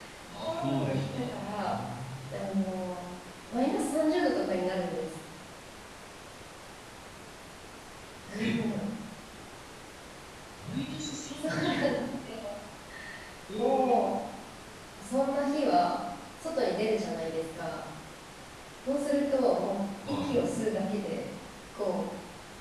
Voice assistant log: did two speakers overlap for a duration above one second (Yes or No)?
Yes